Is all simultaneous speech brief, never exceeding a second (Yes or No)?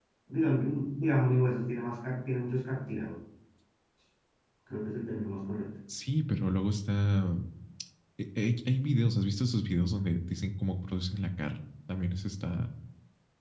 Yes